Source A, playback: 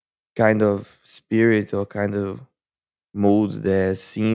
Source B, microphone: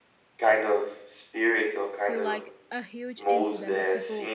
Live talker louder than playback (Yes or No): No